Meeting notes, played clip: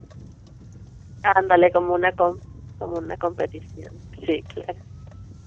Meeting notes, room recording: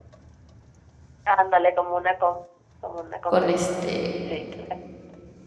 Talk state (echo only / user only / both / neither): both